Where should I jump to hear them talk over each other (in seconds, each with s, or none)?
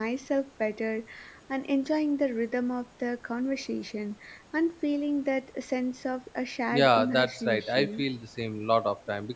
6.7 s